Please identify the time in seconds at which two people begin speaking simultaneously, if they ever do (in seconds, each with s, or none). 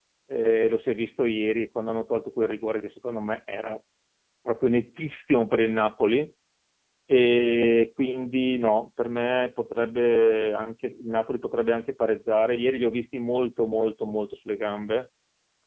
none